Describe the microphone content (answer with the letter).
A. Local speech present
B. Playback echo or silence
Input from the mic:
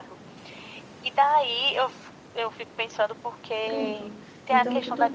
A